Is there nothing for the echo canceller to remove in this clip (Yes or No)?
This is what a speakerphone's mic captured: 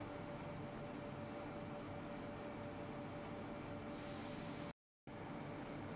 Yes